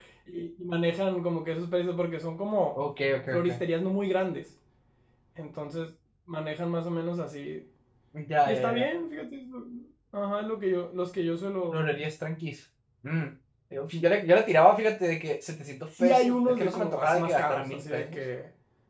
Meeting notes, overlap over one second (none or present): present